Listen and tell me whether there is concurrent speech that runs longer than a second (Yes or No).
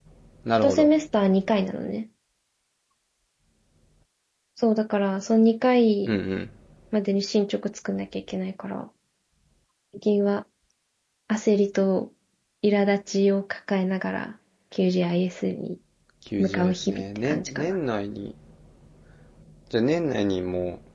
Yes